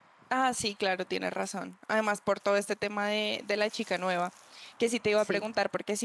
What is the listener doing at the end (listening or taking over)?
listening